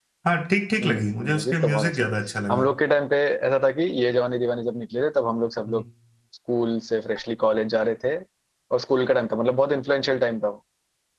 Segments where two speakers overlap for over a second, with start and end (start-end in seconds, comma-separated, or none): 0.8-2.1